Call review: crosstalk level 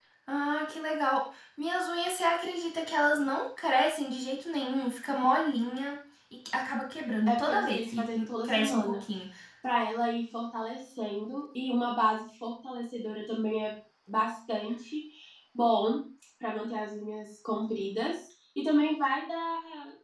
present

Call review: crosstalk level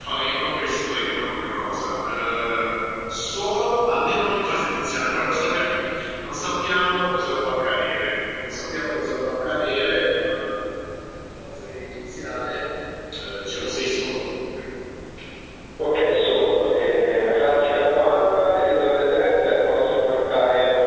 none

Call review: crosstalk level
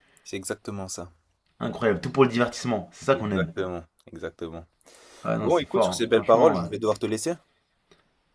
present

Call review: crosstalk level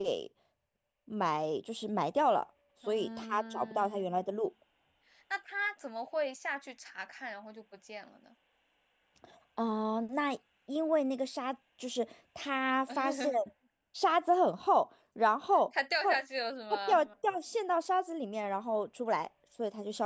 present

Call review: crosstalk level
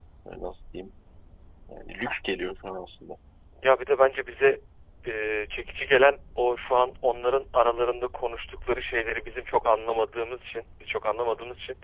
none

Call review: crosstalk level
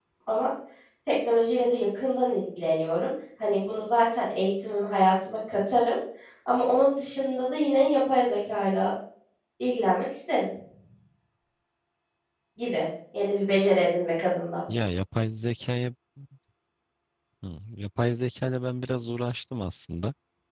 none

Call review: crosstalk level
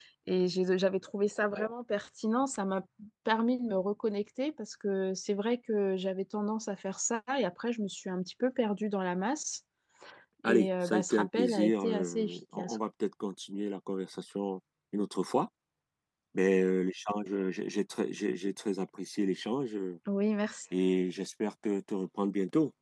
present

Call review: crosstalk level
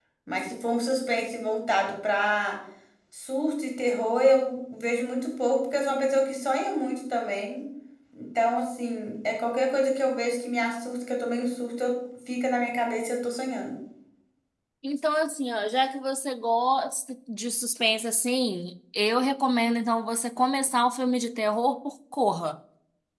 none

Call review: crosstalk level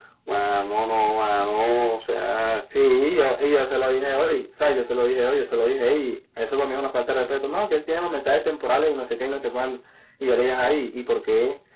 none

